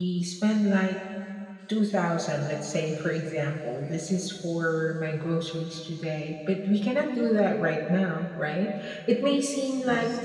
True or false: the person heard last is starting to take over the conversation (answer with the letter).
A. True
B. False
B